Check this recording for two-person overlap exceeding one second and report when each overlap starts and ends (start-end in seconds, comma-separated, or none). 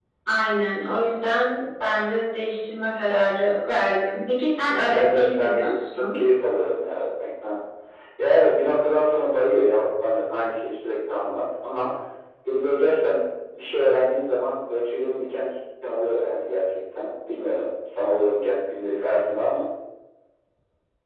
4.9-6.2